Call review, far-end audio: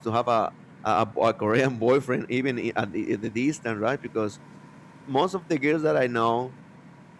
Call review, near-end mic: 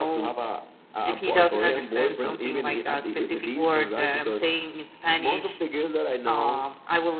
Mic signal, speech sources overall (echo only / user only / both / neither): both